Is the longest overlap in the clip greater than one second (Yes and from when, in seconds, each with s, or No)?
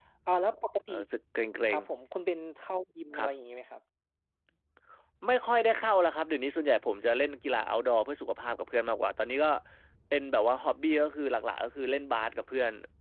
No